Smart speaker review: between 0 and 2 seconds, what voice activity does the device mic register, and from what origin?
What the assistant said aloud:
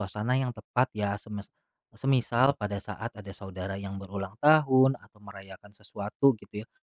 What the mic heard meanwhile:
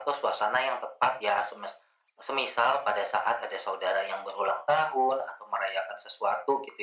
echo only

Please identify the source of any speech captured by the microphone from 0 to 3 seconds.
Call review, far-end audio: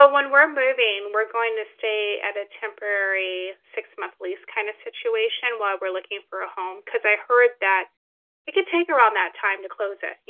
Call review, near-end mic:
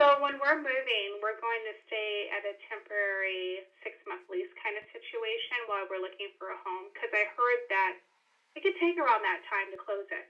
echo only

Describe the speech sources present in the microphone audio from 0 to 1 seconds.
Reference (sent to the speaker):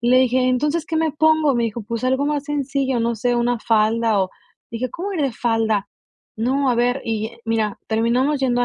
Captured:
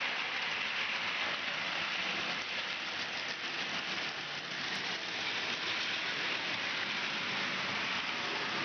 neither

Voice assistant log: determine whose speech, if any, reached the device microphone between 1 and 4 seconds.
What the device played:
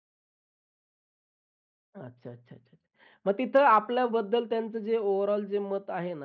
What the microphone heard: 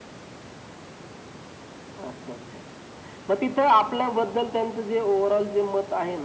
echo only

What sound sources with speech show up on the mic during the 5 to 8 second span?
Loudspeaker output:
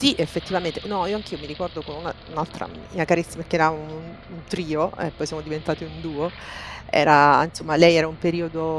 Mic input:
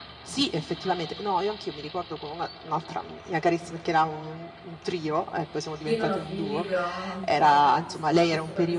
both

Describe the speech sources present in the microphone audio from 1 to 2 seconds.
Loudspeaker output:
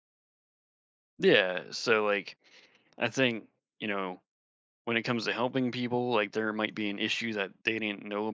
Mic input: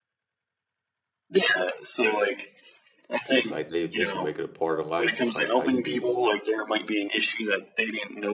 echo only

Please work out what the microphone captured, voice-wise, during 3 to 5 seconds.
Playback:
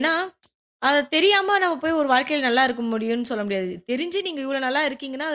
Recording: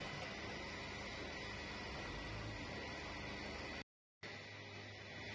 neither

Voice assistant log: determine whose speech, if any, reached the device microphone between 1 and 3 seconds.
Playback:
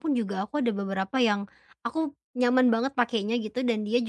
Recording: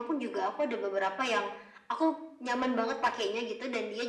echo only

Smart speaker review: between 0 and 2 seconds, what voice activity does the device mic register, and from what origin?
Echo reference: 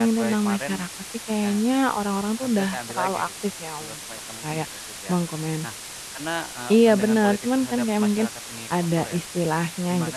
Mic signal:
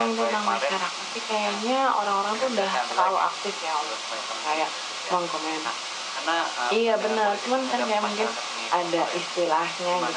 echo only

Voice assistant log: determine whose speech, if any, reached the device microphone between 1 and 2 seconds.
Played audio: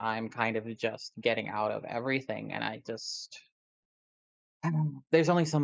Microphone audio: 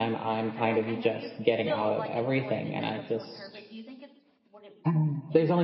both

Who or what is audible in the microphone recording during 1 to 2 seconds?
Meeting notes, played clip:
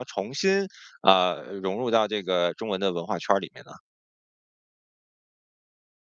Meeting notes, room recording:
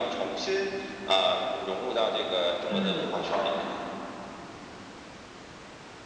echo only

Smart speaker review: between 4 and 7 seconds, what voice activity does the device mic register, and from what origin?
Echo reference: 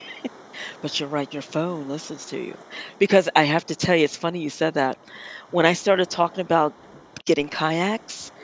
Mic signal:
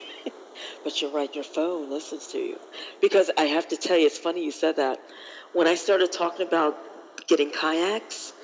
echo only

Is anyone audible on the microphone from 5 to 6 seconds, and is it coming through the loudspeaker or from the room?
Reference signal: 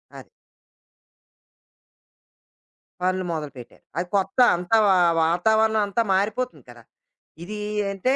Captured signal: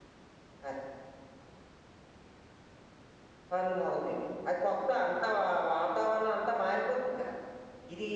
echo only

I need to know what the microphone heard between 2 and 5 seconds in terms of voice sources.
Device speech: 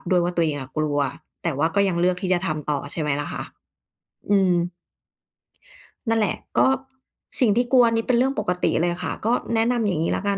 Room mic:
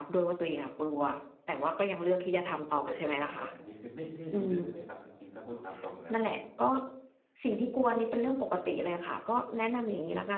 both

